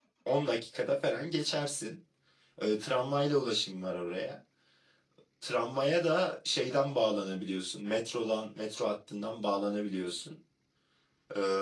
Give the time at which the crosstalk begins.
none

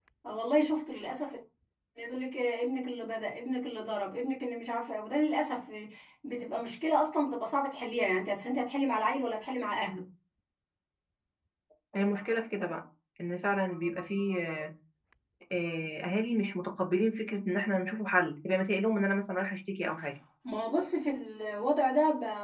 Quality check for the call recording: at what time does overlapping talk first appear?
none

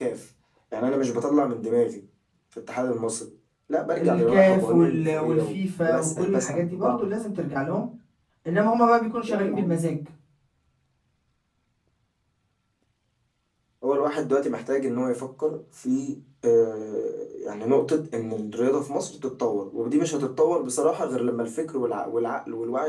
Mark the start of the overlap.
4.0 s

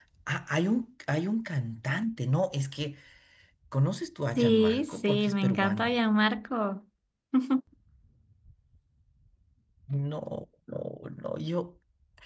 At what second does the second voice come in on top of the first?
4.4 s

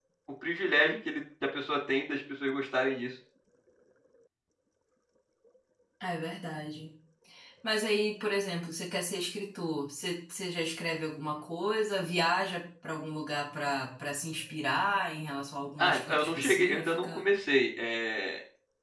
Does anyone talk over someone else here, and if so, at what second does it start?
15.8 s

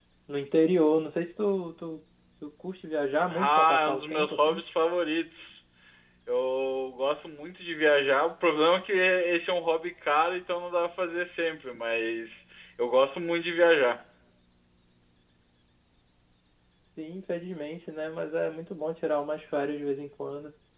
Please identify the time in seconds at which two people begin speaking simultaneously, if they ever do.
3.3 s

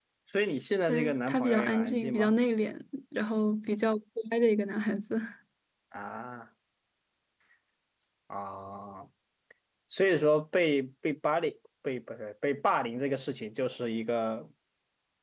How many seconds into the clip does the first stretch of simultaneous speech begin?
0.9 s

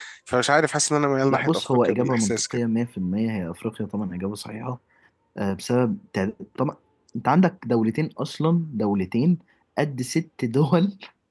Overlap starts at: 1.3 s

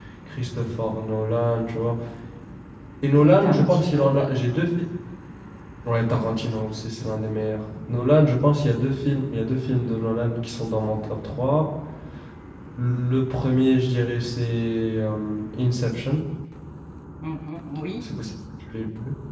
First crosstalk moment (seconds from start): 3.2 s

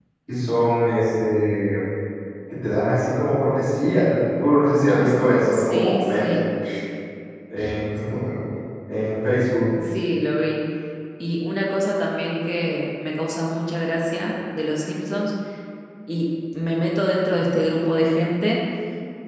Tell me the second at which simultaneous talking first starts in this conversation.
4.9 s

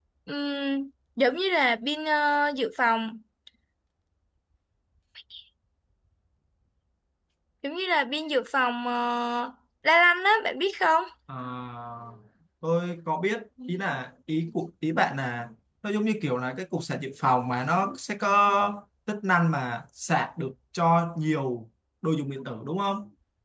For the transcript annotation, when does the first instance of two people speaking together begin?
none

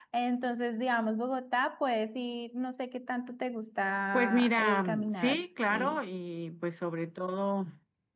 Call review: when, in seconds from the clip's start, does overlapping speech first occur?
4.1 s

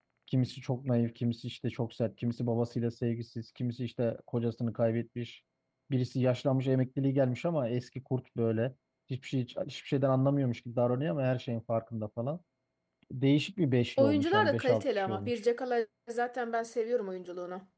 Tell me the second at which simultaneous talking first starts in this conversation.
14.0 s

